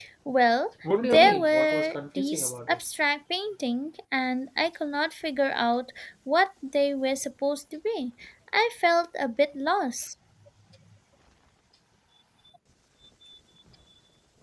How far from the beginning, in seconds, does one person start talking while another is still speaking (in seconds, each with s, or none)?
1.0 s